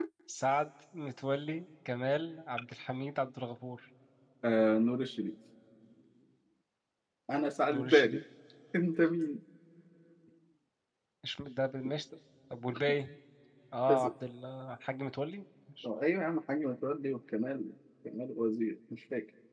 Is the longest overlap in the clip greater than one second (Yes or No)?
No